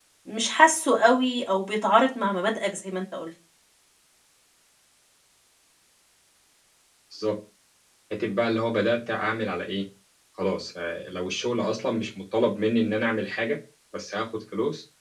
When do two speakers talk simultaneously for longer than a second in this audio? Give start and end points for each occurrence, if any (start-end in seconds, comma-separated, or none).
none